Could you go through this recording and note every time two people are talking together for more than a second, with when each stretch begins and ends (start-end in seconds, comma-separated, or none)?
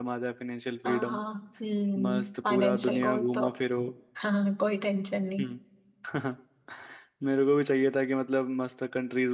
2.0-3.4